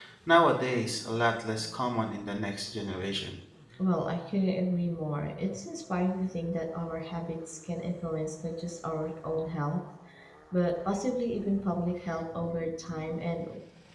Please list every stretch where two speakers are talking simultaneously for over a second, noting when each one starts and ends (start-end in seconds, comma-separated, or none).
none